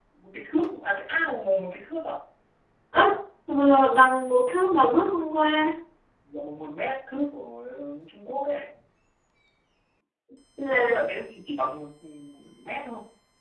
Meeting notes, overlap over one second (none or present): none